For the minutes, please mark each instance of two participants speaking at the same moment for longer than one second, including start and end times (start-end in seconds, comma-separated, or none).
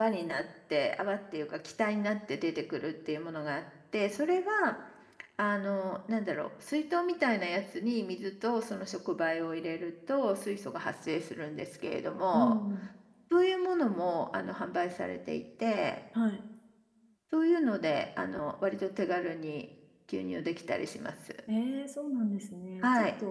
none